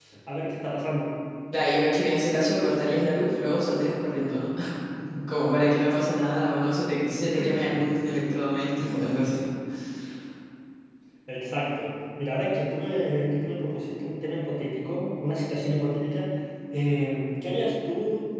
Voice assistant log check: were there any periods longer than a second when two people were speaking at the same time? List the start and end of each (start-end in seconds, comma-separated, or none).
none